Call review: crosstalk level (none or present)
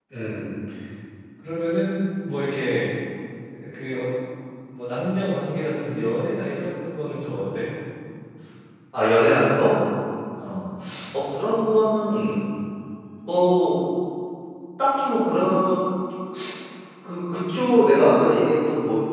none